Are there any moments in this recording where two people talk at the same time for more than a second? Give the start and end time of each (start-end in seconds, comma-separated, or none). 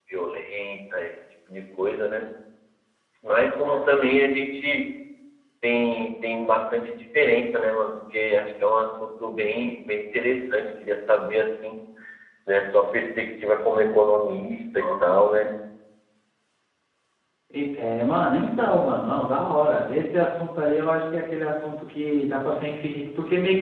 none